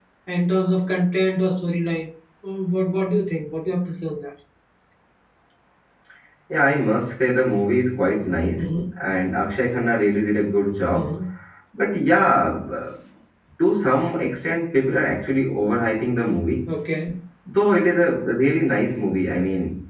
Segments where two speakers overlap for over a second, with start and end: none

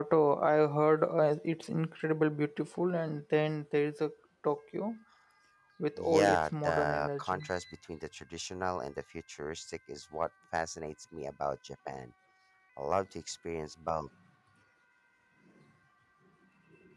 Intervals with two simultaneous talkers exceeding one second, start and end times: 6.0-7.4

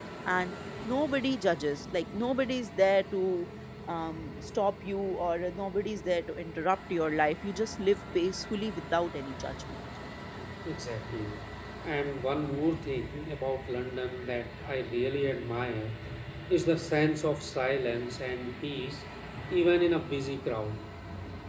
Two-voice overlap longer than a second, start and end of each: none

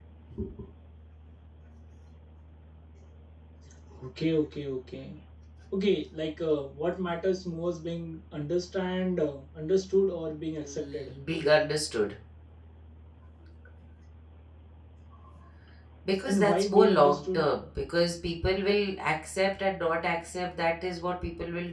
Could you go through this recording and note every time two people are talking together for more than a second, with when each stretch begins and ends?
16.3-17.5

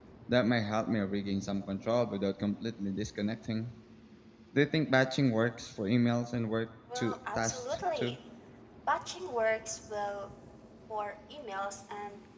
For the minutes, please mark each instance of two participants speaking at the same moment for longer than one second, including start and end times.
7.0-8.2

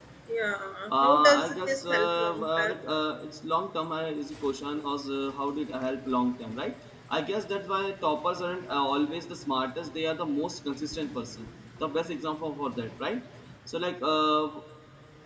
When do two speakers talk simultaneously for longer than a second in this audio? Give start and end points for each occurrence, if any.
0.9-2.8

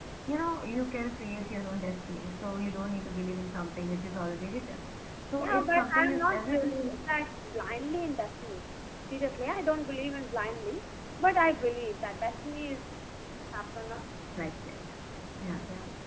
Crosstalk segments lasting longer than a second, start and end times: 5.4-6.9

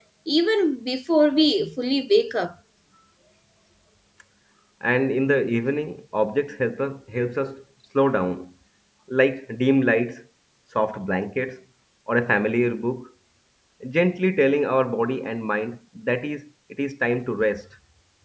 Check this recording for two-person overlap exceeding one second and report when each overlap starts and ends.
none

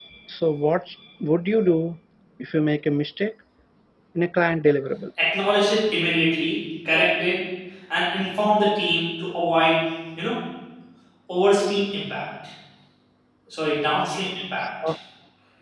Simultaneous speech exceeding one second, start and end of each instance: none

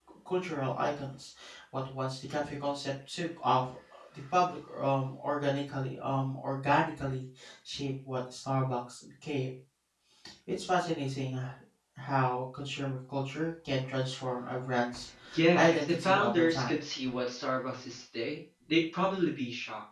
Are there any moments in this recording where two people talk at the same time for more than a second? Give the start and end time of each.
15.6-16.8

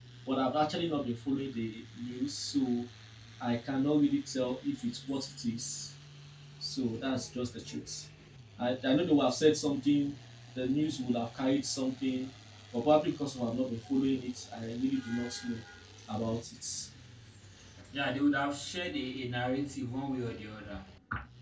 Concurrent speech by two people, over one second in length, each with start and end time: none

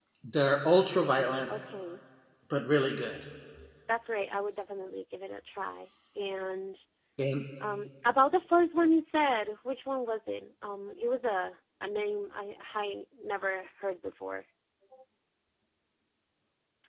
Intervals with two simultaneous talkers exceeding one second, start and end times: none

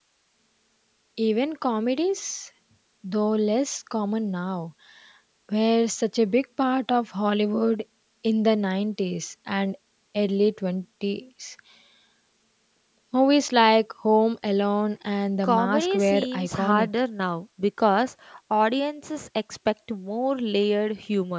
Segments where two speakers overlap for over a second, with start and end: 15.4-16.9

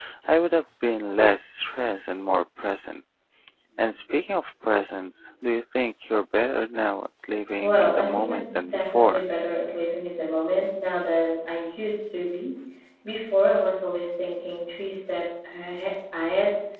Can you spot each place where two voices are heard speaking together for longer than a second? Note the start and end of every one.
7.6-9.3

